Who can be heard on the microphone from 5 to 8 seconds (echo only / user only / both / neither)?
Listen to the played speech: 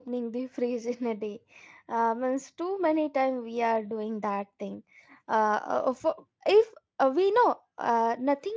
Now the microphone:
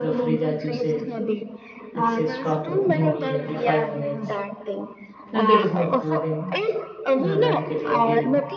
both